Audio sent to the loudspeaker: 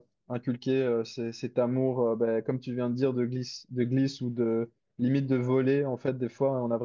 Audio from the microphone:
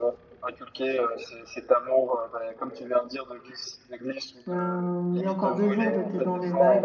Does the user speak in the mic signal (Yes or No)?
Yes